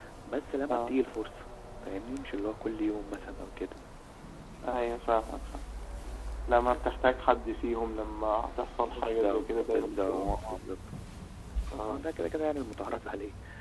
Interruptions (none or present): present